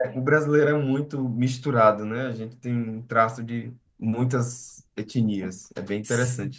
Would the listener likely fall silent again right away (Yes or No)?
No